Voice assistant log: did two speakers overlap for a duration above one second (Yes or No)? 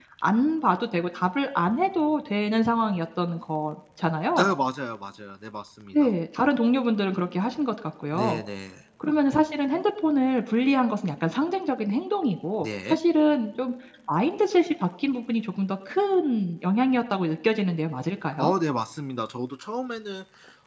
No